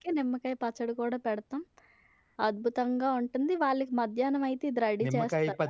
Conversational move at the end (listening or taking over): taking over